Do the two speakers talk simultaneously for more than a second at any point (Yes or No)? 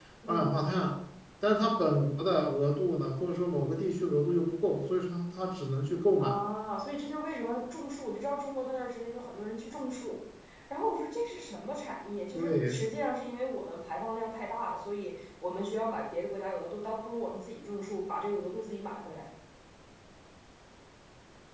No